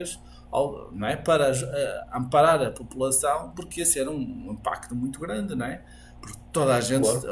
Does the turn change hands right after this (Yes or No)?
No